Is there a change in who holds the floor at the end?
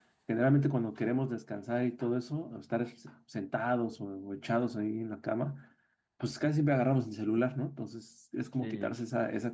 No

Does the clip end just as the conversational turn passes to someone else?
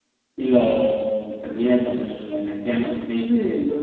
Yes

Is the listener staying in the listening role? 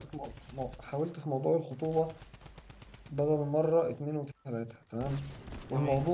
Yes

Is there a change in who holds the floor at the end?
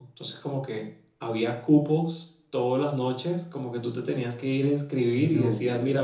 No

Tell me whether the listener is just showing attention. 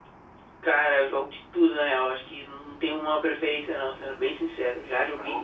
Yes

